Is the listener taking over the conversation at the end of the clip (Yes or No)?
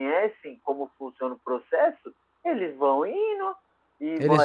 No